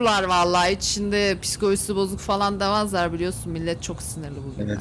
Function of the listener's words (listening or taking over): taking over